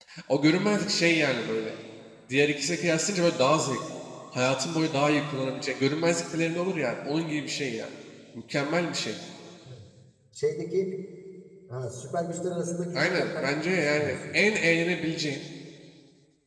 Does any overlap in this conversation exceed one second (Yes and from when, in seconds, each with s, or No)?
Yes, from 12.9 s